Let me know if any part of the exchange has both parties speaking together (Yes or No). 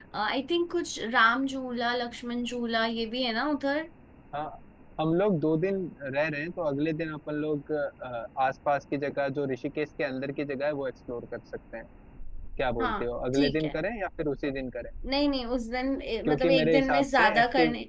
Yes